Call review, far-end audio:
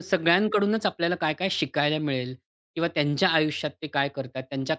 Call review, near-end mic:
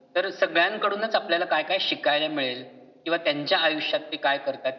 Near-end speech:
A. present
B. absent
B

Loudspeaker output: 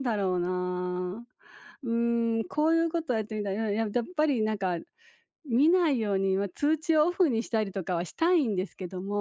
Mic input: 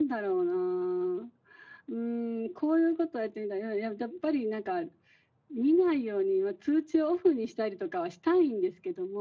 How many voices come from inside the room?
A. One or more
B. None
B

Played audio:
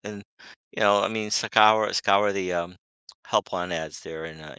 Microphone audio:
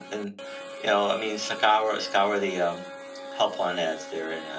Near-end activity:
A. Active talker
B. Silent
B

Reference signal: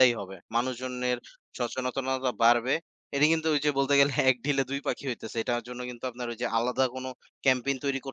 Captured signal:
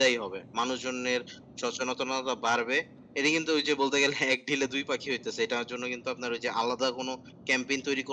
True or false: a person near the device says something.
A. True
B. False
B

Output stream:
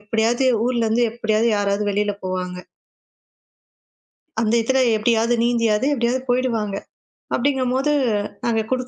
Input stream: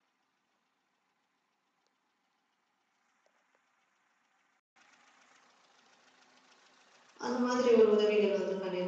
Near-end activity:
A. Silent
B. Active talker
B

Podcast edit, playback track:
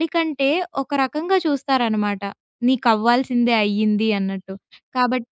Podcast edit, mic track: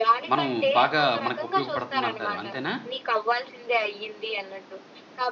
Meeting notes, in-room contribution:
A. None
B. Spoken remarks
B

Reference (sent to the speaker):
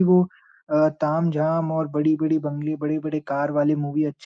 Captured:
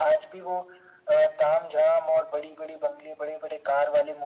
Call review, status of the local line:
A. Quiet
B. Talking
A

